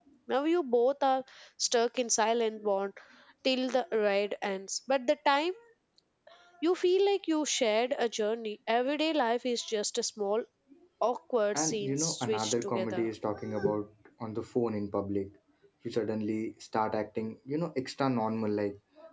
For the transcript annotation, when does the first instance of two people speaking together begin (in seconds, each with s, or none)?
11.5 s